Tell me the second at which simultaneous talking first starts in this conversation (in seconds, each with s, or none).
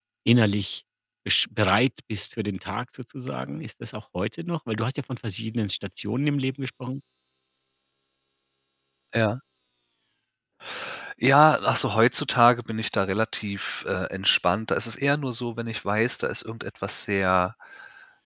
none